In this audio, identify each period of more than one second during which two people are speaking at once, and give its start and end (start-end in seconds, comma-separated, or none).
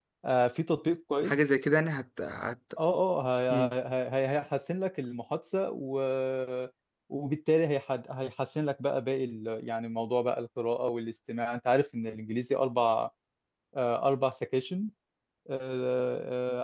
none